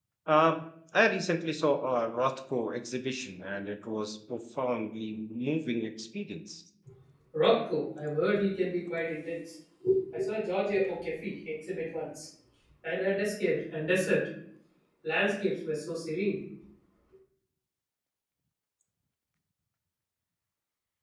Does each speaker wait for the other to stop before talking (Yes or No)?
Yes